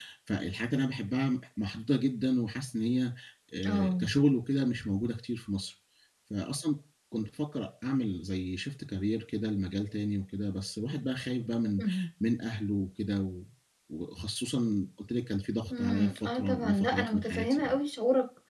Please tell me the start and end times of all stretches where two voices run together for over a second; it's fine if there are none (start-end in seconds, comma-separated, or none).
15.8-17.6